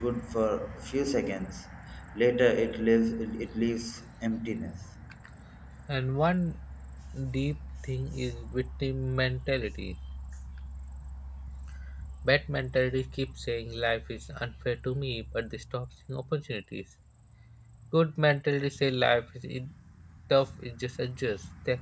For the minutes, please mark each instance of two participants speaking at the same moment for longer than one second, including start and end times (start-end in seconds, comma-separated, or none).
none